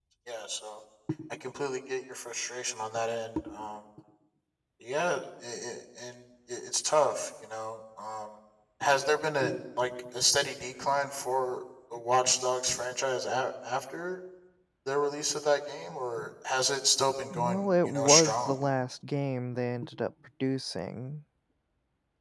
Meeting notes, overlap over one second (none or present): present